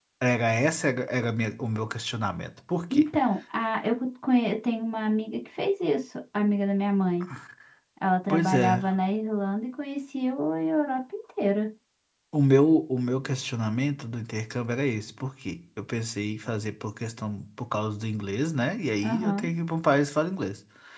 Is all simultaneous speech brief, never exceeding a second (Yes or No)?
Yes